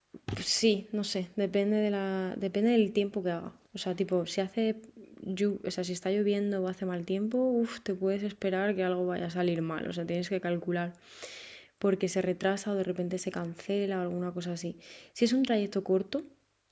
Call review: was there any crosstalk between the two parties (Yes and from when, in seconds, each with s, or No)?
No